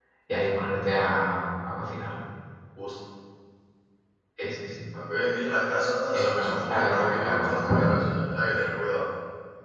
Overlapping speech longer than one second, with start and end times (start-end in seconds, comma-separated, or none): 6.0-7.9